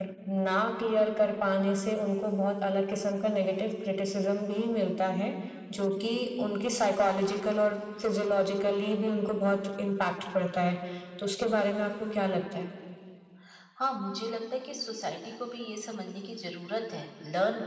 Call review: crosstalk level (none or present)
none